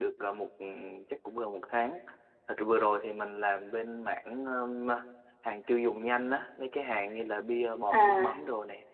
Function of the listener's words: listening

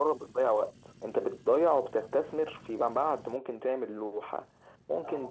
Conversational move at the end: listening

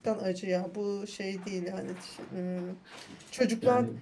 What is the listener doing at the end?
listening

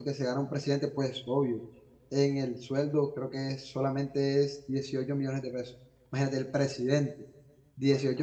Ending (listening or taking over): listening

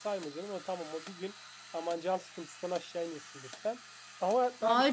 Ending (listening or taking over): taking over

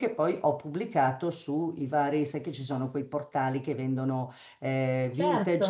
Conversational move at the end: listening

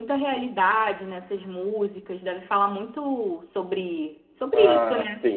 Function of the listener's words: taking over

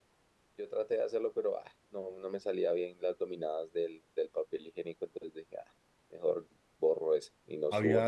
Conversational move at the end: taking over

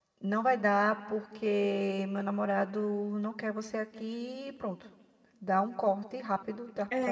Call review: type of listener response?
taking over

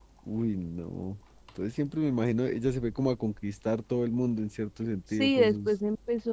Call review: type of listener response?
taking over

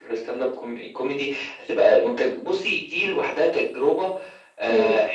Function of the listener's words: listening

